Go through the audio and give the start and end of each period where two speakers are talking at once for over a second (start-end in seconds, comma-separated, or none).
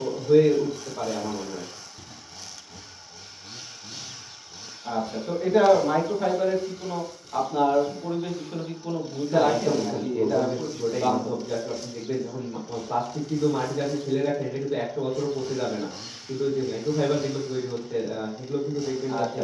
9.3-11.3